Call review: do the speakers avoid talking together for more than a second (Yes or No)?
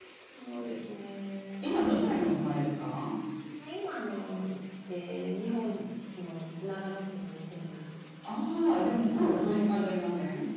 Yes